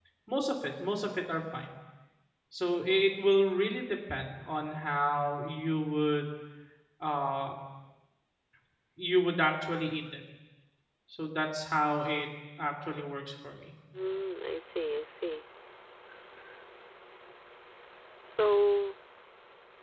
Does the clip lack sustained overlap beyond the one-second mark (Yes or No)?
Yes